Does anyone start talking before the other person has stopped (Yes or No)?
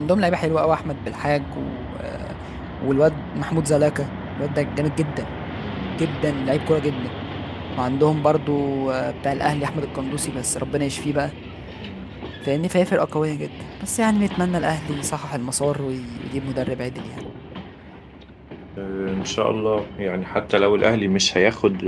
No